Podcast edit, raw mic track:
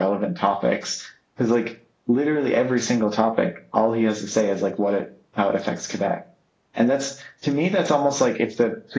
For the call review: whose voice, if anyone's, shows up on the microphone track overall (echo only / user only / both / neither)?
echo only